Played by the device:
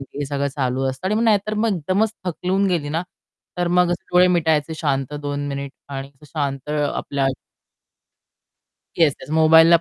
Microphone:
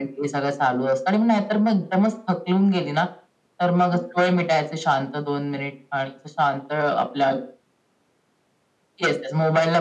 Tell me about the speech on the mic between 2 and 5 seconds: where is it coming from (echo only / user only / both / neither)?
echo only